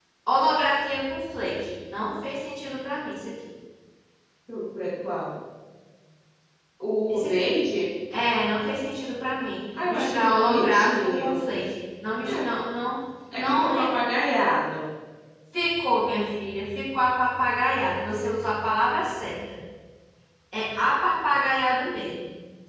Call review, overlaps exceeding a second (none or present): present